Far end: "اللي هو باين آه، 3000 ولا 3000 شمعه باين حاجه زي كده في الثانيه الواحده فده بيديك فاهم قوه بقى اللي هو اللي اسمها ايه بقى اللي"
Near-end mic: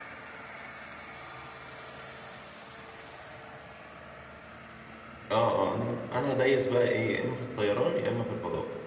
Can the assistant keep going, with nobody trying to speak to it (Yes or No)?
No